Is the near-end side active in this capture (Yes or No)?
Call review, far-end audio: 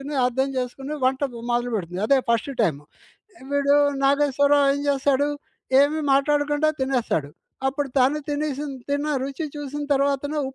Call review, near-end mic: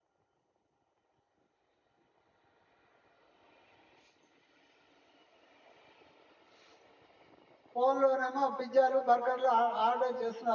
Yes